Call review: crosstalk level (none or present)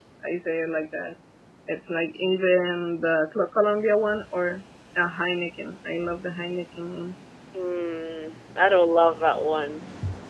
none